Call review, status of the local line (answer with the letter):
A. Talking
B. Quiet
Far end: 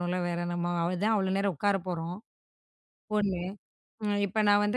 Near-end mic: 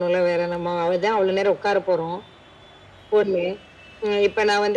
B